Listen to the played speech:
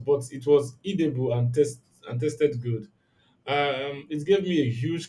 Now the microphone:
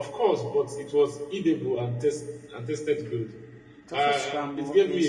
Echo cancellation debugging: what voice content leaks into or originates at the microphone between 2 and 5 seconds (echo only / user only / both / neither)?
both